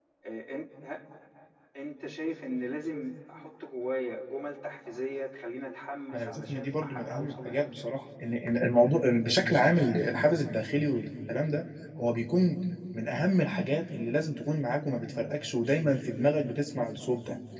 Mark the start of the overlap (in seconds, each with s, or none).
6.1 s